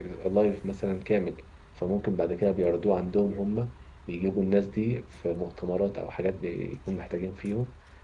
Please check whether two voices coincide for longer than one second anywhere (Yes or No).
No